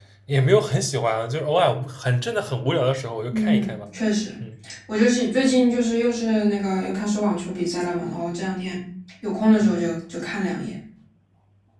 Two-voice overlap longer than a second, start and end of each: none

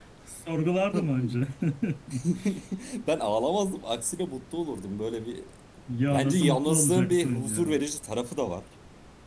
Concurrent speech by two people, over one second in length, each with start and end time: 6.1-7.8

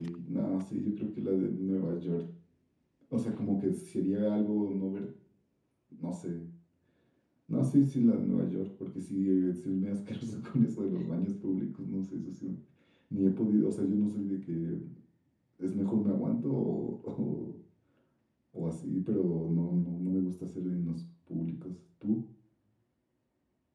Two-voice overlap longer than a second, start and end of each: none

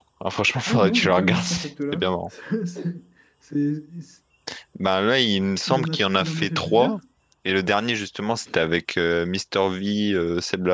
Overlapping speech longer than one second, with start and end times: 0.7-2.0, 5.7-7.0

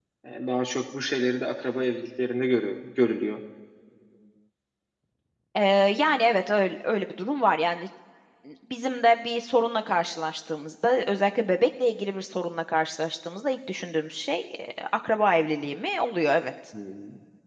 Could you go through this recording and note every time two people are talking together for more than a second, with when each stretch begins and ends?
none

